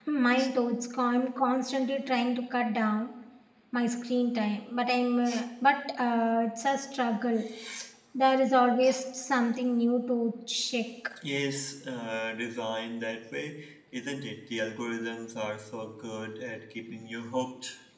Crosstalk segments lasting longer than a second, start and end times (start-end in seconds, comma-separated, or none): none